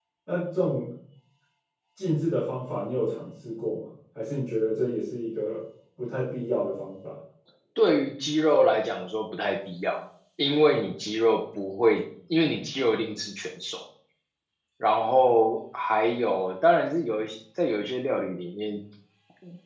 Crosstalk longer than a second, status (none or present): none